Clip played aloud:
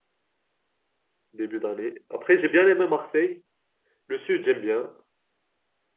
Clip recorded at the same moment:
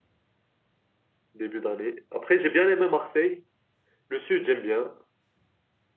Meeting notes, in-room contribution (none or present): none